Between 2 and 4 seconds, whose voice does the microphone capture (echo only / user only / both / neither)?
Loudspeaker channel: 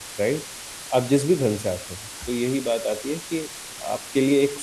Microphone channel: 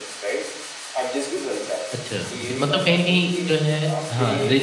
both